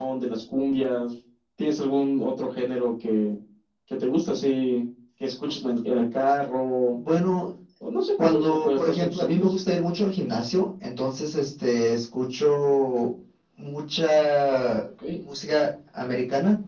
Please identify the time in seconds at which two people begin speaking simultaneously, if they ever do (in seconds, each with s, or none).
8.2 s